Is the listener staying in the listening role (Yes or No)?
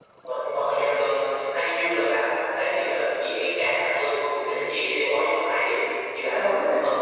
No